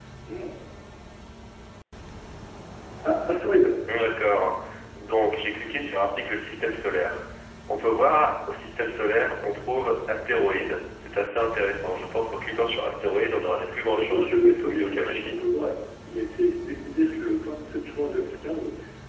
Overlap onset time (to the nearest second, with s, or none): 14 s